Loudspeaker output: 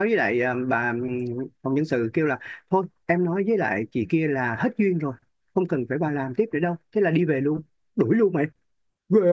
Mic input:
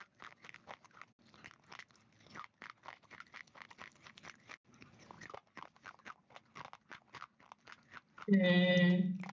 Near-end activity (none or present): present